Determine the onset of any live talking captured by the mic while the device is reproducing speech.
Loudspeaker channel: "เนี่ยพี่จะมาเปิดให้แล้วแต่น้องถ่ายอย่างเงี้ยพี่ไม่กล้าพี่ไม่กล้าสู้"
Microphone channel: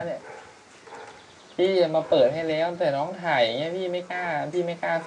none

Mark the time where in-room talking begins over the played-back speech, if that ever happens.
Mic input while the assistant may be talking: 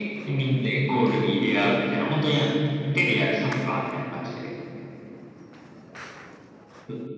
none

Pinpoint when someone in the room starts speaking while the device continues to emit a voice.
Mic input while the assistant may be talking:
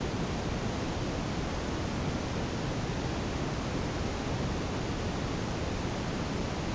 none

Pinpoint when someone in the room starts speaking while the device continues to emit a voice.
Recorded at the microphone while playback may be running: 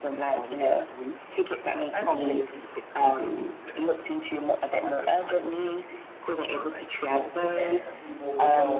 8 s

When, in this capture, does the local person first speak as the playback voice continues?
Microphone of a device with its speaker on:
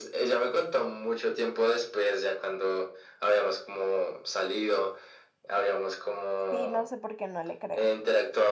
7 s

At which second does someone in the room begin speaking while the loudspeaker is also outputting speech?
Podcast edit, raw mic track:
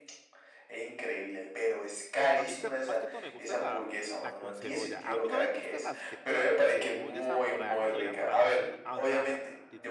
2 s

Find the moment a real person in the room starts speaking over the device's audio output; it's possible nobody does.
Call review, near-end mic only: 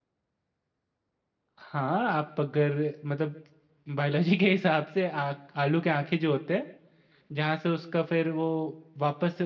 2 s

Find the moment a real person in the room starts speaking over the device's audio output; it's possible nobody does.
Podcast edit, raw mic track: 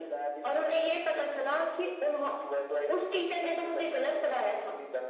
none

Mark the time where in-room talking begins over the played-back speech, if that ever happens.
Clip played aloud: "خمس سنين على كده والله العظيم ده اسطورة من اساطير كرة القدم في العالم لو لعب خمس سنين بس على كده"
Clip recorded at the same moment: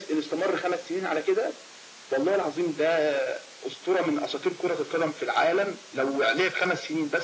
none

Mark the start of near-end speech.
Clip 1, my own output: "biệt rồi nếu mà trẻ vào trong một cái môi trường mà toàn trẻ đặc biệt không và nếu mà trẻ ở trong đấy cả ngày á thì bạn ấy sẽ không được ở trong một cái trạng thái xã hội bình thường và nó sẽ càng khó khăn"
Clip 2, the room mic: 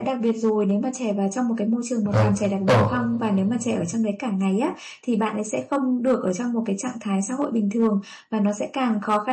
2 s

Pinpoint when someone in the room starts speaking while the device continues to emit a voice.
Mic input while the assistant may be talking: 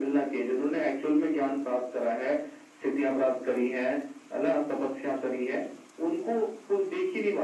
none

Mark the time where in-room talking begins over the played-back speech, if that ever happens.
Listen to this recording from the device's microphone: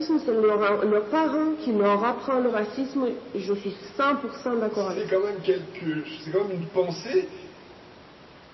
5 s

